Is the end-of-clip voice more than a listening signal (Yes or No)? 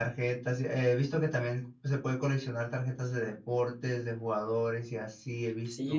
Yes